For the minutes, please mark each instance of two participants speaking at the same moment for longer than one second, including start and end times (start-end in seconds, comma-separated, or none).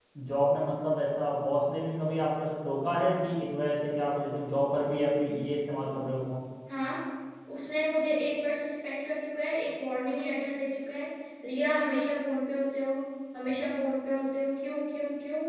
none